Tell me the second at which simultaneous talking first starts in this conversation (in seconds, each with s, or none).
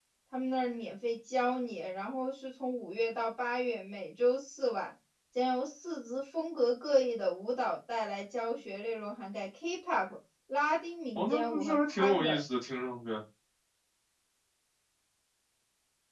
11.2 s